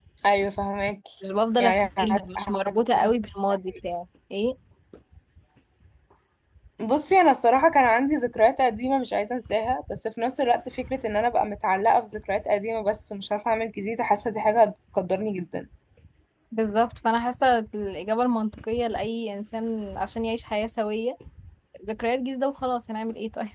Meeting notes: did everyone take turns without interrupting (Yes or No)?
No